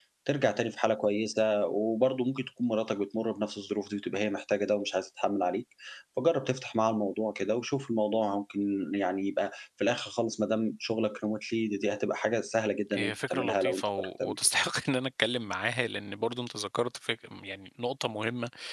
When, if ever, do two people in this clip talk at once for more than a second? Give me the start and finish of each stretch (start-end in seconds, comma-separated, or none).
12.9-14.3